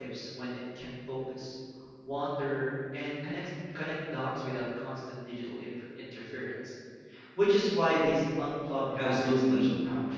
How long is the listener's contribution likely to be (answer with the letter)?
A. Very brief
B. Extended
B